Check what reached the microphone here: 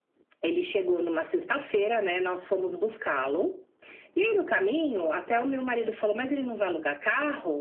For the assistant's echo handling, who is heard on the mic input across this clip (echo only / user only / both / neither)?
echo only